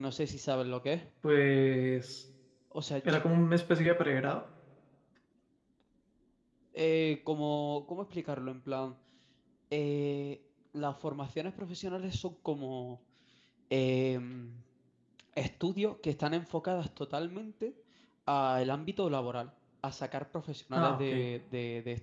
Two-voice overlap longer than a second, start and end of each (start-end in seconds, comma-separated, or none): none